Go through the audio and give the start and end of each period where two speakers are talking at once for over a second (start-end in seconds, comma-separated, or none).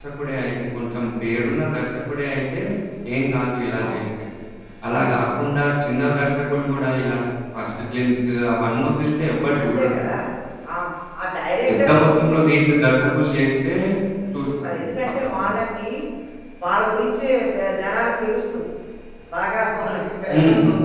none